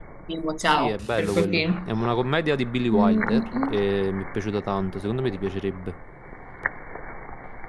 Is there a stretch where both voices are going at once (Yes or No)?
Yes